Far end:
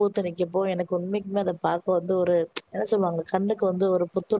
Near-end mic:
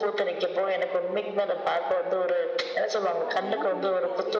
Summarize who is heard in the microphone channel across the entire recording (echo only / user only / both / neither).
both